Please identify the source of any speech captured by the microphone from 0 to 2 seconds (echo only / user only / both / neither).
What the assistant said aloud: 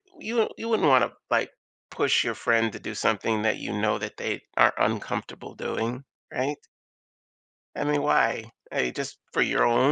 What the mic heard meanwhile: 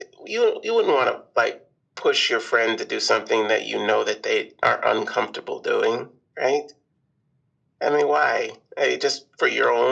echo only